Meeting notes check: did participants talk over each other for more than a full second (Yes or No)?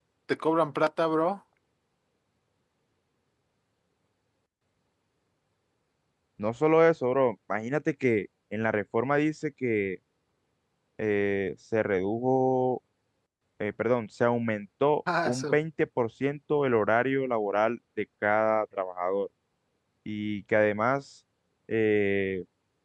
No